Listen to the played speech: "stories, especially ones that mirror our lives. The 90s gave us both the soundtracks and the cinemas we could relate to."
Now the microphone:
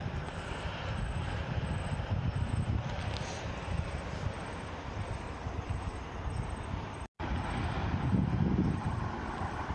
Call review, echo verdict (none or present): none